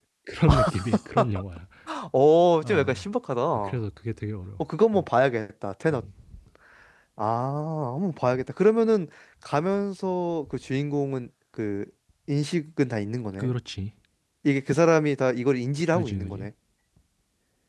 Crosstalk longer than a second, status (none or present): none